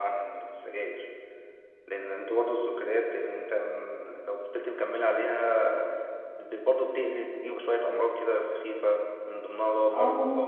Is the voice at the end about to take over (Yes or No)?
No